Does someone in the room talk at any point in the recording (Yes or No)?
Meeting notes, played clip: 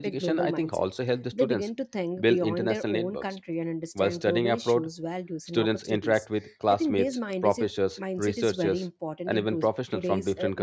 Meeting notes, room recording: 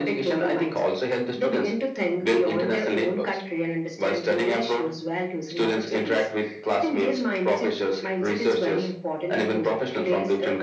No